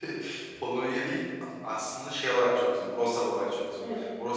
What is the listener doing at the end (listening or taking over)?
listening